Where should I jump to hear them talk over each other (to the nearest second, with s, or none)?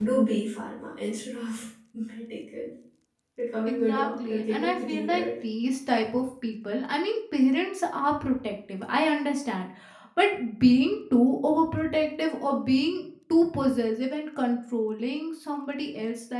4 s